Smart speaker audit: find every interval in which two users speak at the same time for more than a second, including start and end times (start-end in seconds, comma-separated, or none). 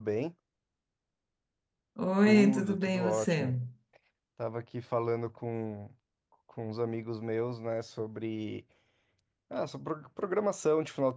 2.3-3.5